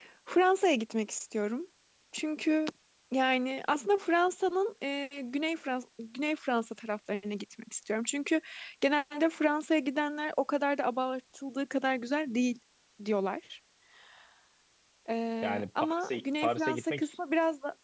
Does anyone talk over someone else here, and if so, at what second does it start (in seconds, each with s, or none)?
15.4 s